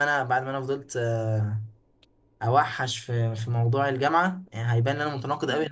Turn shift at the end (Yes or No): No